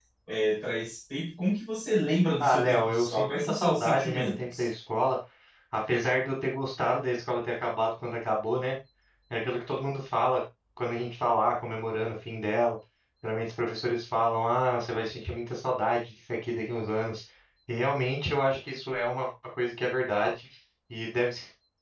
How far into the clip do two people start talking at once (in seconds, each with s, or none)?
2.4 s